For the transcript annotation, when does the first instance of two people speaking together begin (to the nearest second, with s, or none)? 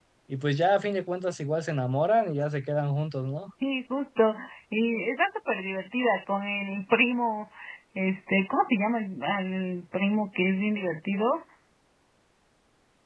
none